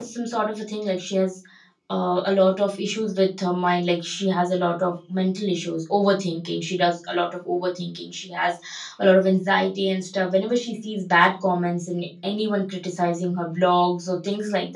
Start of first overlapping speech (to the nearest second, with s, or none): none